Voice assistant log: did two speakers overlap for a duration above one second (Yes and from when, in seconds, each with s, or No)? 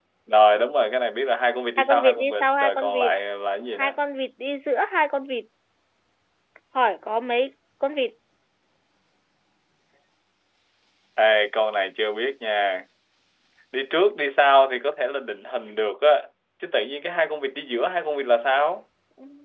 Yes, from 1.8 s